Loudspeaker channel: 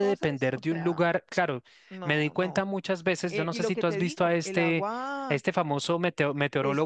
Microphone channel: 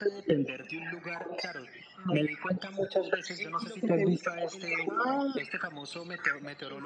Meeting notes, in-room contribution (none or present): none